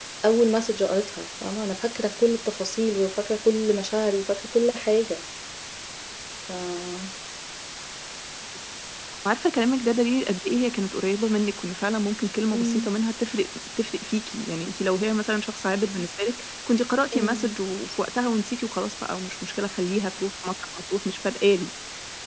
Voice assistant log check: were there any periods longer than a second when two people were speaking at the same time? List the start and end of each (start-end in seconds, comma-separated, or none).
none